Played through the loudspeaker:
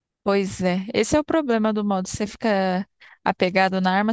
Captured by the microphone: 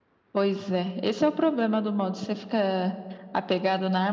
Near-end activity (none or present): none